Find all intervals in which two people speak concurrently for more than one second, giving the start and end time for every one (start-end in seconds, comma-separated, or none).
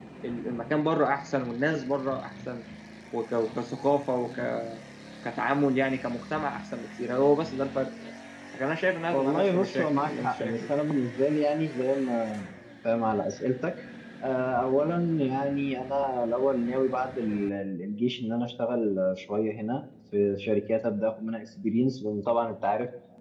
9.1-10.5